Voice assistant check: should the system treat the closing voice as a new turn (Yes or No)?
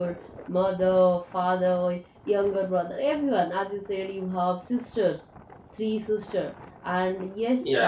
No